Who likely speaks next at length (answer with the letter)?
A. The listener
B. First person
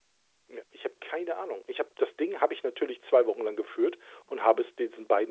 B